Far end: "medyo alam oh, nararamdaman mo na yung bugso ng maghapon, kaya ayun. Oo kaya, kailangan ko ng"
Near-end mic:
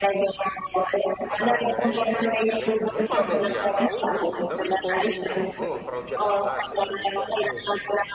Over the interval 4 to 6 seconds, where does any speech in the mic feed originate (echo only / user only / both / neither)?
both